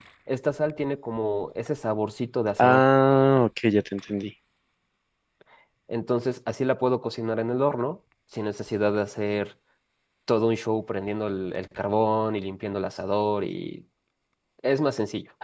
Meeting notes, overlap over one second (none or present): none